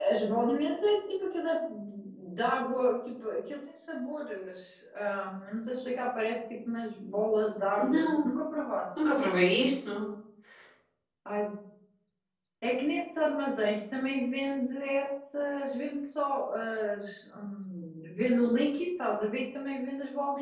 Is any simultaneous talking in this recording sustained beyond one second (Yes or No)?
No